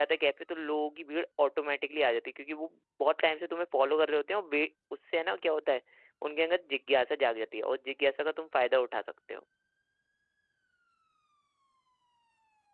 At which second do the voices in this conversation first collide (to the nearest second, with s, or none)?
none